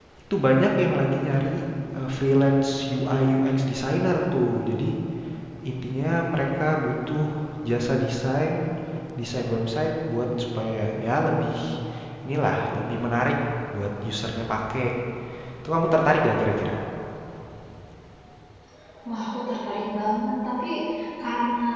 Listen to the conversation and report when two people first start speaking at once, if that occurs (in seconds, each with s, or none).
none